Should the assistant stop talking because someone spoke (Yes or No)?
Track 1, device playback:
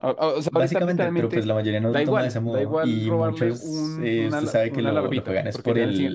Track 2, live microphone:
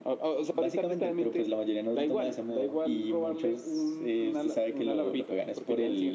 No